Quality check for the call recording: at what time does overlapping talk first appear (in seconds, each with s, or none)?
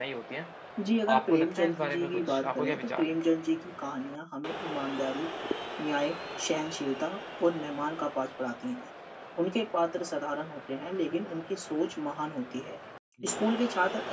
1.2 s